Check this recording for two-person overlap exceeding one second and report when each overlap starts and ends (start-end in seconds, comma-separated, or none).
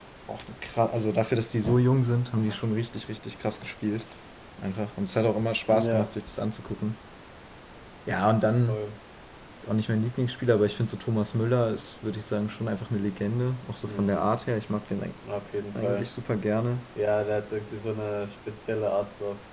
none